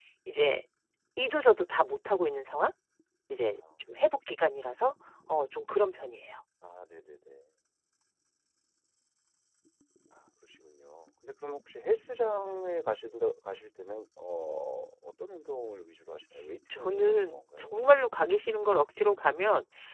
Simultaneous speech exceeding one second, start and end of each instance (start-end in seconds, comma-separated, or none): 16.7-18.0